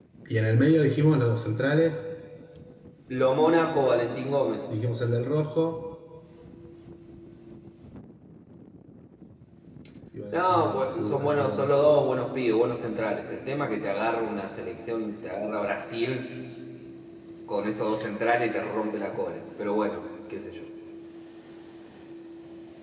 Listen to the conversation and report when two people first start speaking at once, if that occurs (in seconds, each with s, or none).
10.3 s